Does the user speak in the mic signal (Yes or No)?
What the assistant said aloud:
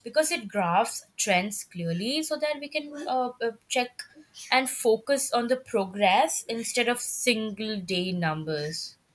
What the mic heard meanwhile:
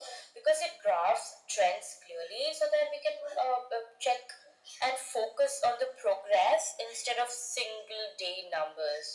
No